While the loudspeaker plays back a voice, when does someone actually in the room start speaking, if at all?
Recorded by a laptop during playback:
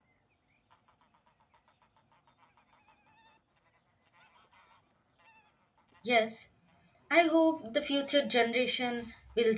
6.0 s

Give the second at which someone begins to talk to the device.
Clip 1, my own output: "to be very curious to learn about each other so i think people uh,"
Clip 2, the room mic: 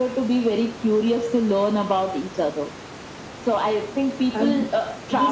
4.3 s

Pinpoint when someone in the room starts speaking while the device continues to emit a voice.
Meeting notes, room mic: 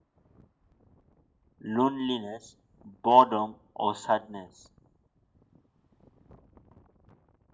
1.6 s

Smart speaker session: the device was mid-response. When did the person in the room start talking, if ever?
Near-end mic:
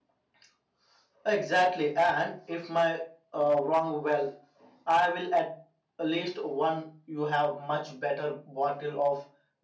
none

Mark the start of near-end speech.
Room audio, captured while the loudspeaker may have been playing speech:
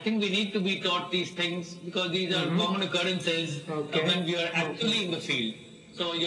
2.3 s

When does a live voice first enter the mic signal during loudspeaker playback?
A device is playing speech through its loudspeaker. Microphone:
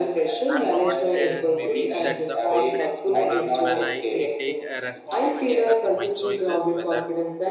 0.5 s

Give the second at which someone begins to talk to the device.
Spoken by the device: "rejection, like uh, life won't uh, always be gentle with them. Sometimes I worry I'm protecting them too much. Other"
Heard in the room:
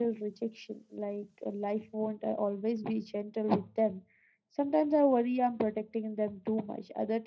none

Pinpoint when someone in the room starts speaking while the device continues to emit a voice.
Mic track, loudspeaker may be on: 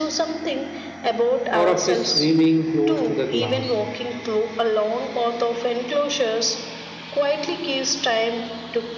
1.5 s

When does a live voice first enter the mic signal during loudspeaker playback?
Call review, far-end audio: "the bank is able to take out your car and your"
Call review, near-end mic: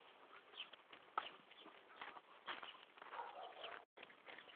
none

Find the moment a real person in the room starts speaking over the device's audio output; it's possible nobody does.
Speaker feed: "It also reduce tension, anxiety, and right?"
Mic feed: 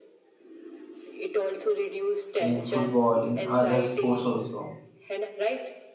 2.4 s

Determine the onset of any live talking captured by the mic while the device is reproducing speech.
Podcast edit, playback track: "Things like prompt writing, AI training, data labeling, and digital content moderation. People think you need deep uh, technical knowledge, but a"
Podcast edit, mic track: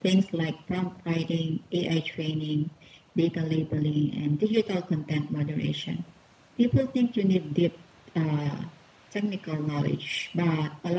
none

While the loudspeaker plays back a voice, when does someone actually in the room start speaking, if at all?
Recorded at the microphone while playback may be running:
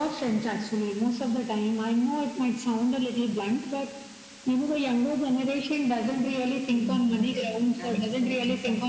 6.7 s

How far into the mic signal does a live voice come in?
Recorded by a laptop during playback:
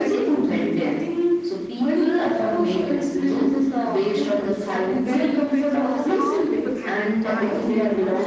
5.1 s

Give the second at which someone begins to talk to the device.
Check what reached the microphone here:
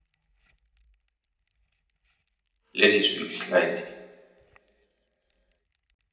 2.8 s

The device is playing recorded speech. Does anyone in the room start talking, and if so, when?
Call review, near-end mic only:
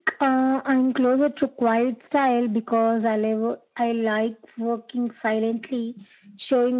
none

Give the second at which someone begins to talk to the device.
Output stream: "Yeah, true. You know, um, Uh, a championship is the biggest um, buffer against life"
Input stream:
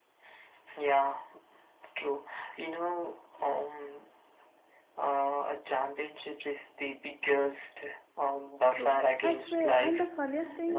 8.7 s

